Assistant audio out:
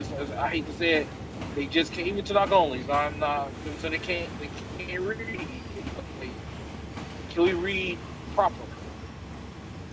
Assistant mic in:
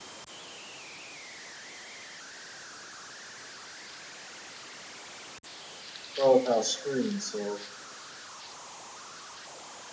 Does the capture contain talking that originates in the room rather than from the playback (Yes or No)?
Yes